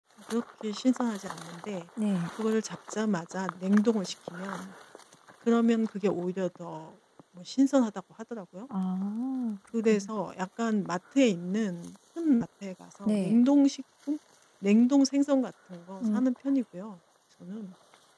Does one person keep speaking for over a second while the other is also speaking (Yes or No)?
No